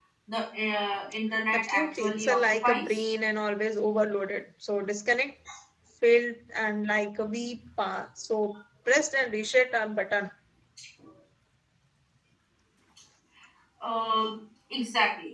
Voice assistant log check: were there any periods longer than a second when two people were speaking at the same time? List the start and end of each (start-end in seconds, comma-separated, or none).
1.5-3.0